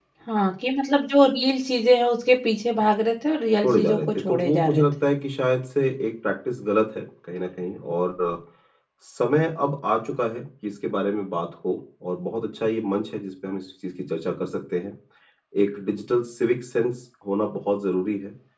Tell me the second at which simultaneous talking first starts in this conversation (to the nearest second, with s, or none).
4 s